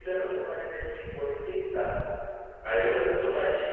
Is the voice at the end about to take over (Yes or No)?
No